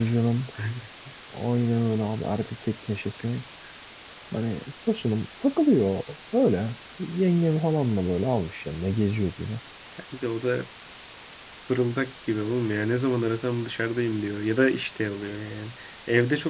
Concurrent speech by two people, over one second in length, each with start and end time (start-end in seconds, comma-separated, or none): none